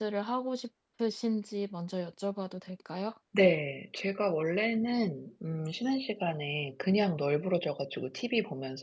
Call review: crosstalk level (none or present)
none